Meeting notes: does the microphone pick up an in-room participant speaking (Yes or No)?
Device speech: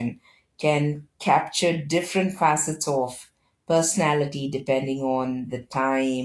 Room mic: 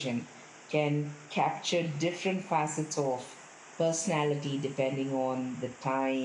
No